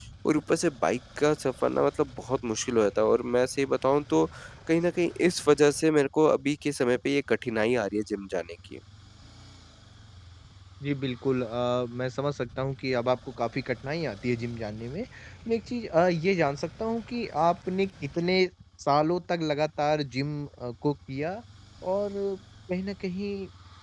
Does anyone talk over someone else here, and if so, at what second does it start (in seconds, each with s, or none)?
none